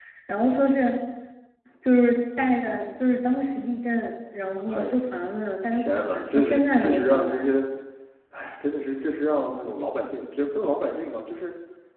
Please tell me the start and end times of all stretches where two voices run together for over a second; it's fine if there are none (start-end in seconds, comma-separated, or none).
5.7-7.5